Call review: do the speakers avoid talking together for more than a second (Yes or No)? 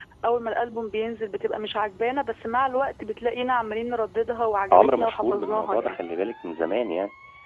No